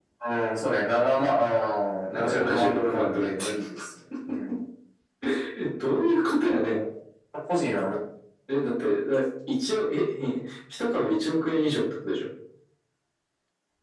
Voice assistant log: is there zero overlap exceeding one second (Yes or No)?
No